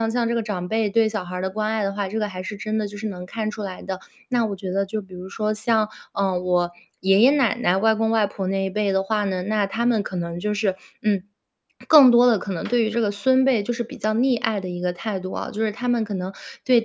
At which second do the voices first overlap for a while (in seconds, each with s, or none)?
none